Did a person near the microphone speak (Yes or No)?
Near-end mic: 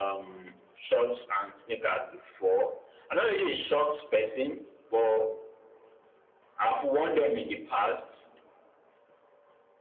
No